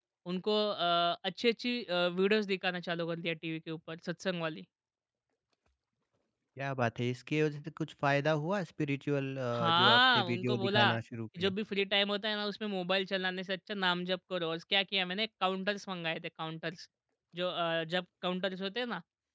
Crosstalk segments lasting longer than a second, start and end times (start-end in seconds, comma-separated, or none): 9.5-10.9